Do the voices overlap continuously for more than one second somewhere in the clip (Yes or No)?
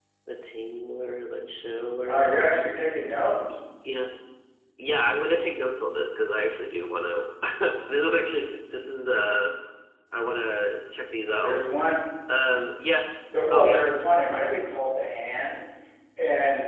No